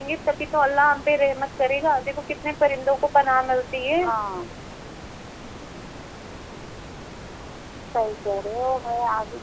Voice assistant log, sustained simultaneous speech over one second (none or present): none